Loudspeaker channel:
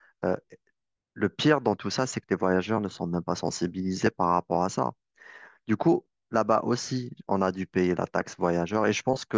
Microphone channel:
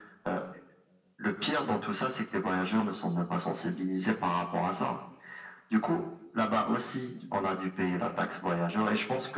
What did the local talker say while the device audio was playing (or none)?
none